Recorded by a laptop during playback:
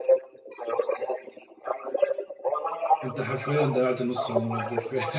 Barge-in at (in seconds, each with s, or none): 3.0 s